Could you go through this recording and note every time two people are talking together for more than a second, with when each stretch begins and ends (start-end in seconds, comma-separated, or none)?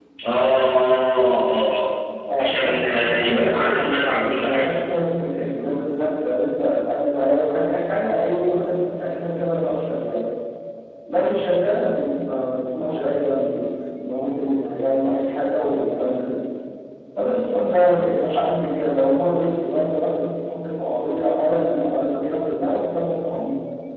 2.4-4.6